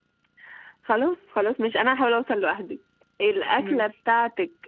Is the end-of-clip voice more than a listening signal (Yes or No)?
No